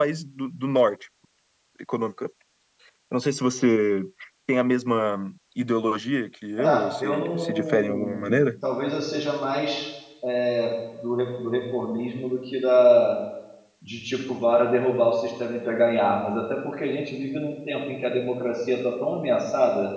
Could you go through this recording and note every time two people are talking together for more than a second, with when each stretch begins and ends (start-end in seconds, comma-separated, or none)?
6.6-8.4